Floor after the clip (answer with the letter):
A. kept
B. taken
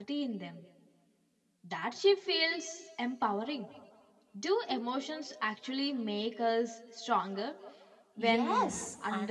B